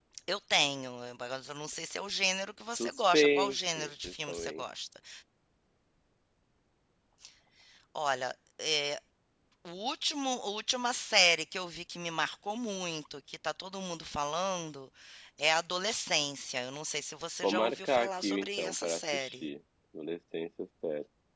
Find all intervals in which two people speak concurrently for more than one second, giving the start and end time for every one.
2.8-4.6, 17.4-19.4

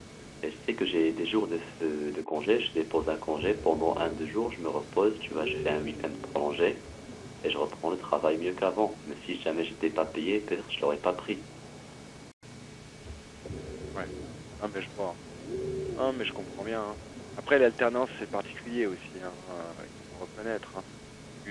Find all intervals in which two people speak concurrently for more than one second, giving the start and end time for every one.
none

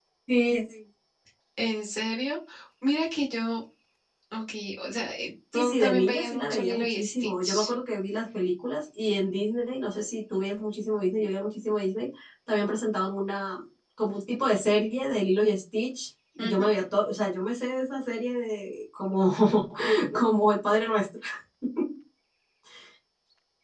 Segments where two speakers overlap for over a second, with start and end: 5.5-7.7

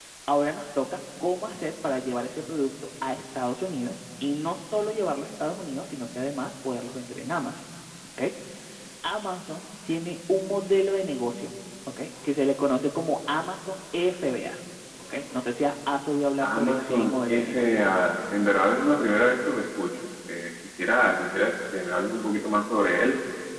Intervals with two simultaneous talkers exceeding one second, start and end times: 16.4-18.0

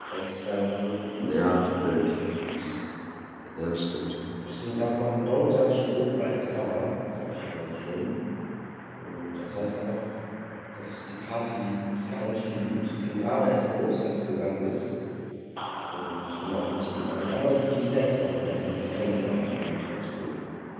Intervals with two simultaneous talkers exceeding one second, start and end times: none

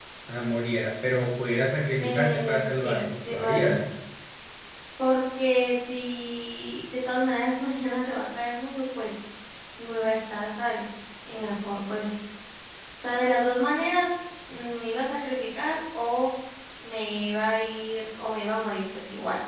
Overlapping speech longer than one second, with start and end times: 2.0-3.8

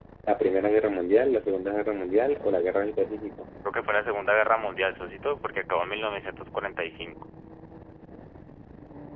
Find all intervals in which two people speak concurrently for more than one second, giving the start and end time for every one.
none

